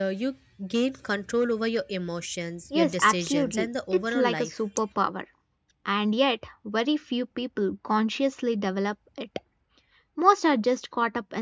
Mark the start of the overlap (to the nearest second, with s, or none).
3 s